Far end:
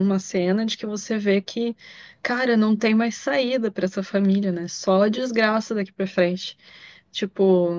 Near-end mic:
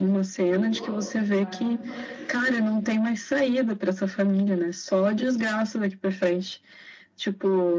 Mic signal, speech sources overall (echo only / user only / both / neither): both